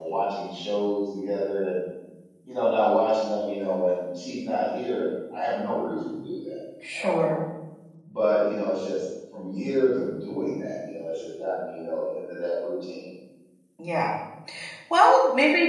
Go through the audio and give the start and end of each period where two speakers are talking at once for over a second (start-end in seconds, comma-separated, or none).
none